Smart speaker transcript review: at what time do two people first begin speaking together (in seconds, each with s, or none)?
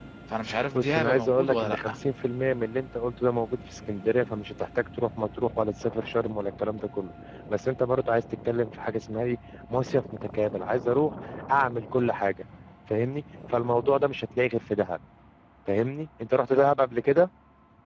0.7 s